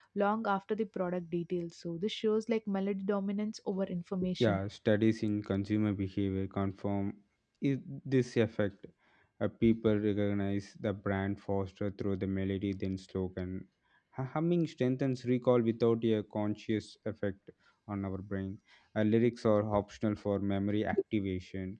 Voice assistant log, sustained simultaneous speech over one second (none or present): none